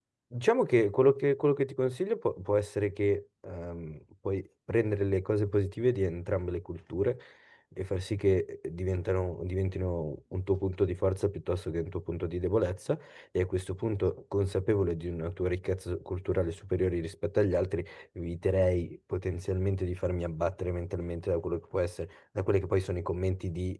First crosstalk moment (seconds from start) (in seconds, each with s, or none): none